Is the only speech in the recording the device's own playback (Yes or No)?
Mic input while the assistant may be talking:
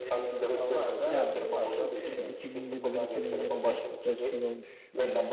No